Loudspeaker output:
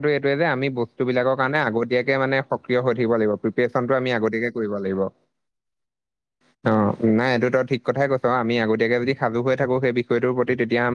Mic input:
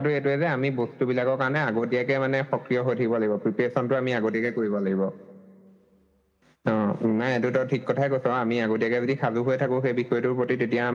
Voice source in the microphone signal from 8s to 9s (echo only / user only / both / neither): echo only